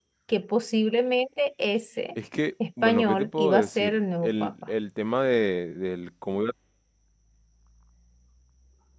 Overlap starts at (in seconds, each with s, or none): 2.8 s